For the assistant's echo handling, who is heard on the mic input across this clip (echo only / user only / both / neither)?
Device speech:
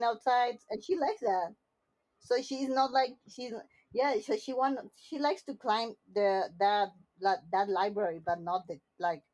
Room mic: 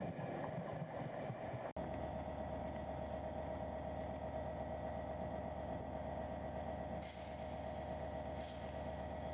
neither